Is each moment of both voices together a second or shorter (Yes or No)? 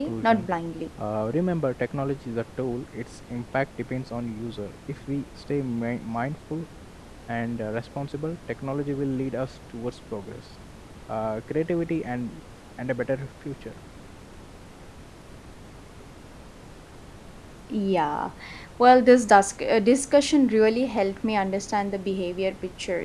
Yes